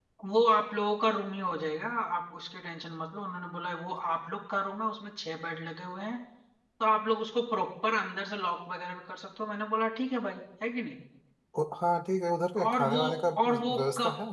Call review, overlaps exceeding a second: present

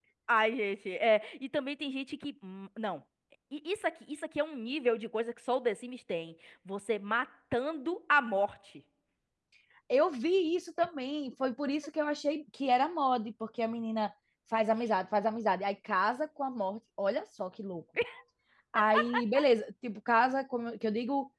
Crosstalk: none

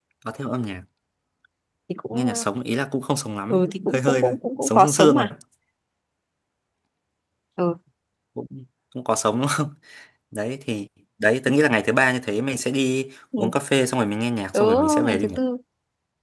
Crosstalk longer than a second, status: present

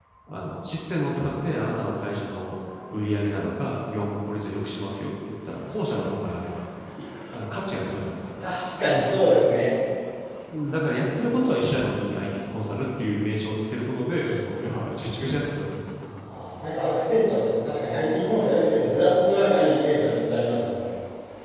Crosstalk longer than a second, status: none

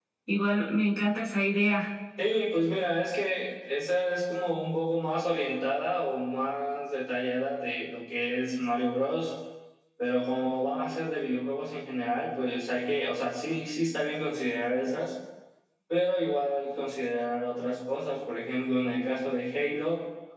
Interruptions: none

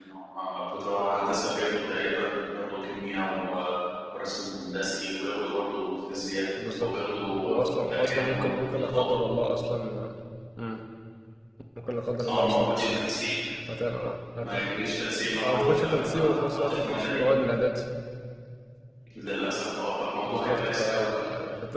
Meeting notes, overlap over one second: present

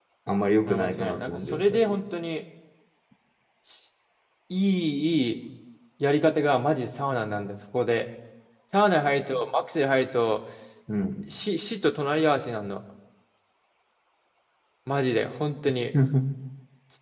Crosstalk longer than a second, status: present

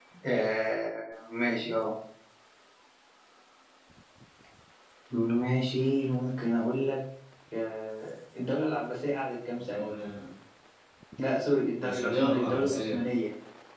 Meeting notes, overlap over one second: present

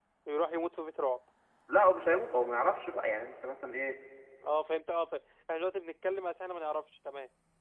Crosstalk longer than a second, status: none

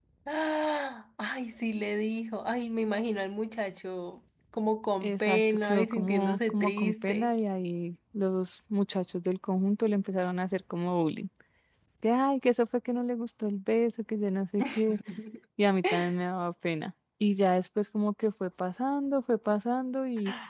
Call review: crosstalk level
present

